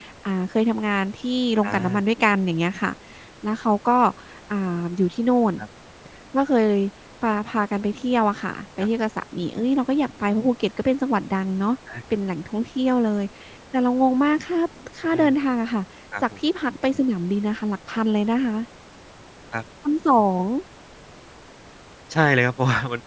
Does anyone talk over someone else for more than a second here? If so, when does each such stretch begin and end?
none

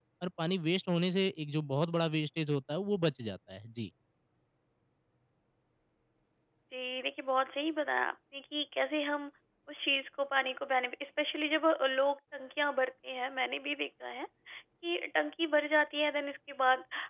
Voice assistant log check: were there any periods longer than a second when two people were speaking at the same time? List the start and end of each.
none

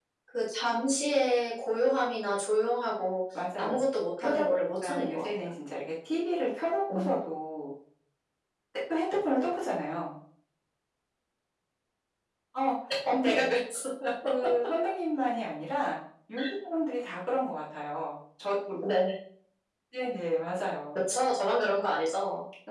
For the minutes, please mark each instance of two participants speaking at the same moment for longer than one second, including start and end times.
4.2-5.5

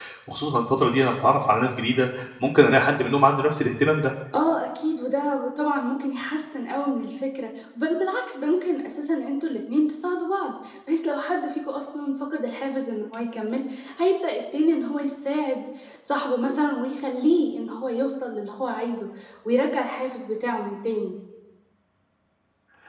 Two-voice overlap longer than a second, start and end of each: none

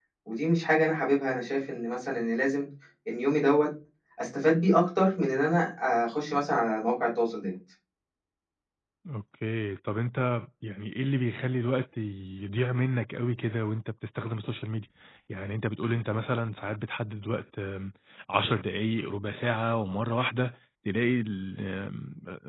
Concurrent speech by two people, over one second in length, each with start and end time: none

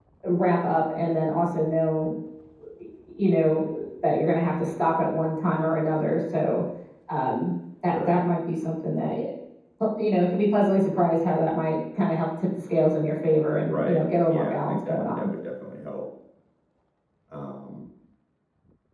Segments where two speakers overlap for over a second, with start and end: 13.6-15.3

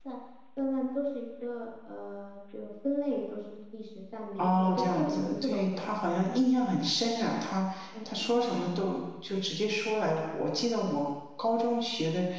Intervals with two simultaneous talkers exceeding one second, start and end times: 4.4-5.7

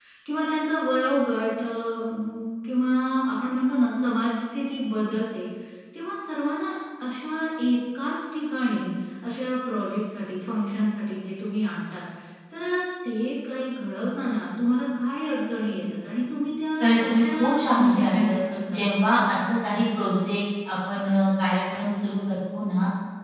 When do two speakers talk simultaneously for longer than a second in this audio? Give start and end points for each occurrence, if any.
16.8-18.3

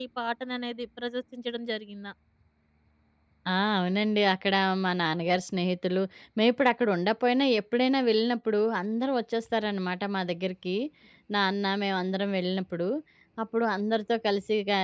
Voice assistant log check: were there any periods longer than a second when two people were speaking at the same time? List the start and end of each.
none

